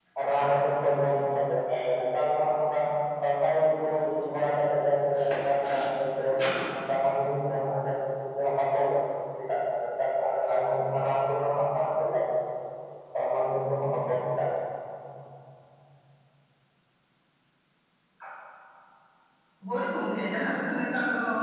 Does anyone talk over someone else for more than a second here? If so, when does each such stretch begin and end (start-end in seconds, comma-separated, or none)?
none